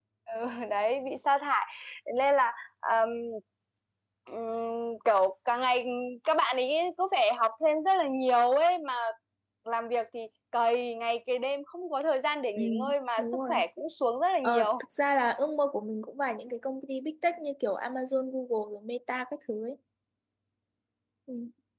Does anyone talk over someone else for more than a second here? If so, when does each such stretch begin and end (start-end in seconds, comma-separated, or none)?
none